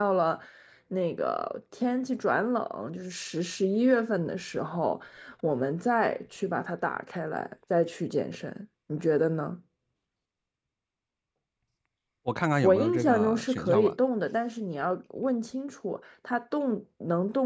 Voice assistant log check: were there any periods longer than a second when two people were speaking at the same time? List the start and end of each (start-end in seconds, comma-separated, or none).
12.6-13.9